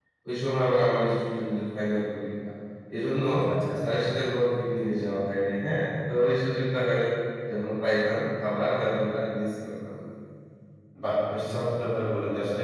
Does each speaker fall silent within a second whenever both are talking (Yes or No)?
Yes